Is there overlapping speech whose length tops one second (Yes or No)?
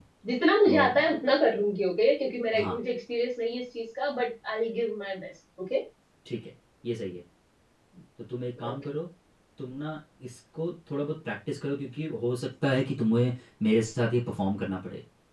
No